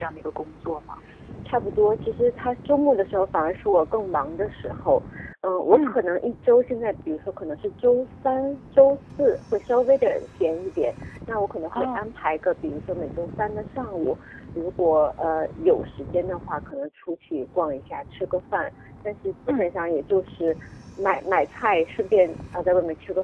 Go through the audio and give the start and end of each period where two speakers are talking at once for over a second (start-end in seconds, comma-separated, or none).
none